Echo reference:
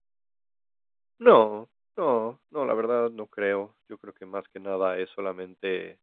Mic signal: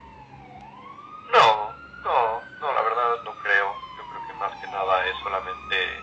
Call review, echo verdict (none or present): present